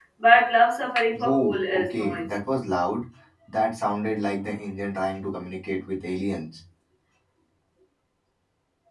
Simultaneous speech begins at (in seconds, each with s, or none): 1.1 s